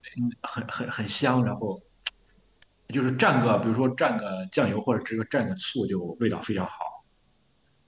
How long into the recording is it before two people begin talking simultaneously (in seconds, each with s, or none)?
none